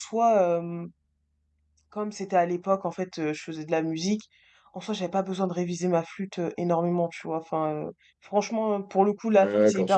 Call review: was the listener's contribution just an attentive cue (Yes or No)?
No